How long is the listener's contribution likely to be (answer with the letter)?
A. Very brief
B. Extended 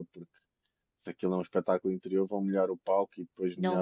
B